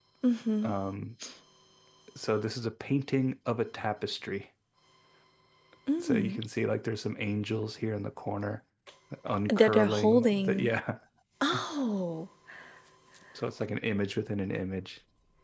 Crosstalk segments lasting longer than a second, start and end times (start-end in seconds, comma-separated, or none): 9.5-10.7